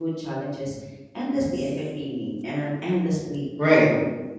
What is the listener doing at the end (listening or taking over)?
taking over